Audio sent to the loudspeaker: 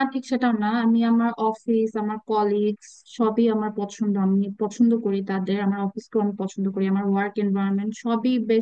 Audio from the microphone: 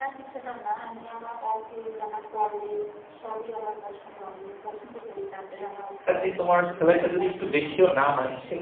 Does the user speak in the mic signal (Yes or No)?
Yes